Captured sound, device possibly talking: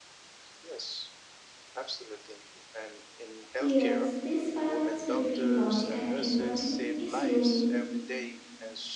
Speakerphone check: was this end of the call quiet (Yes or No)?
No